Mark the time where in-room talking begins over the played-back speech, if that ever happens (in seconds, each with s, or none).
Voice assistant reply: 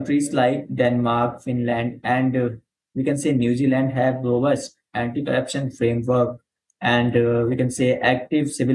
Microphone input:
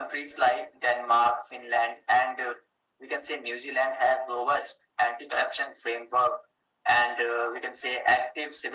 none